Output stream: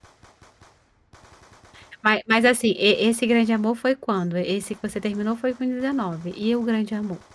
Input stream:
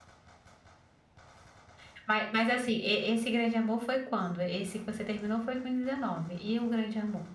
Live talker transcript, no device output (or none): none